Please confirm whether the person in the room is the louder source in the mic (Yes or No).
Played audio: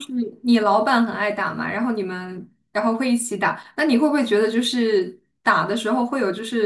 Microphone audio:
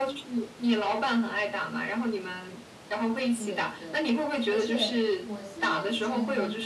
No